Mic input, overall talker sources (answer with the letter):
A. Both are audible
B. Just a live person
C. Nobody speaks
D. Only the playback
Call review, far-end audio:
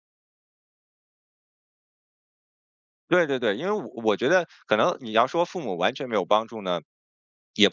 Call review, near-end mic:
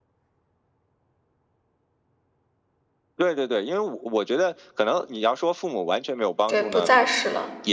A